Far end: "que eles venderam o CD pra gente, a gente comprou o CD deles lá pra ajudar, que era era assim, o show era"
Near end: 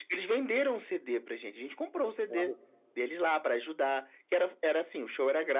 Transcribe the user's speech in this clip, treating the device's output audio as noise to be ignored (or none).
Aquela